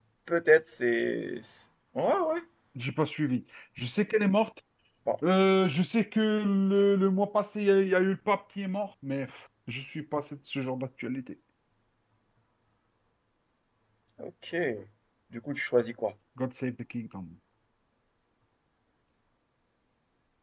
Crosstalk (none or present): none